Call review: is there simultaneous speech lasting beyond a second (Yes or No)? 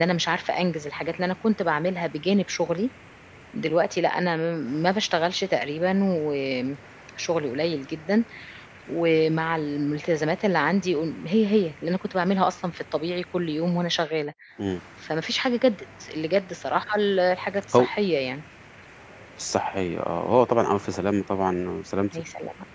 No